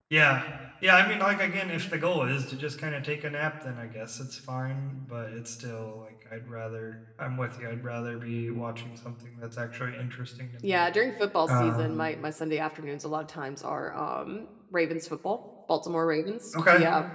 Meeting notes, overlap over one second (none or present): none